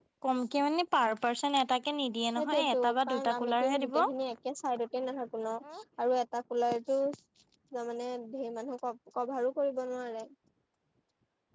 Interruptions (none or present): present